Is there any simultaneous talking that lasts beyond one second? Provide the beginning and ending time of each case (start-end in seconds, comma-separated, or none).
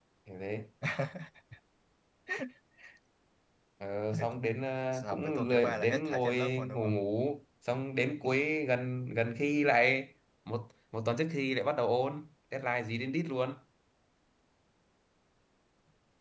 4.9-6.9